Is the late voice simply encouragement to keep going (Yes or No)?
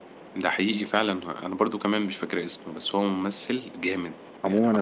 No